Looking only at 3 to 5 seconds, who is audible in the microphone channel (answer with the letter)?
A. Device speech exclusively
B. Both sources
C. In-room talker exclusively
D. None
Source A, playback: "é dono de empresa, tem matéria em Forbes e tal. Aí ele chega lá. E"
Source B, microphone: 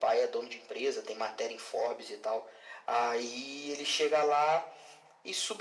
A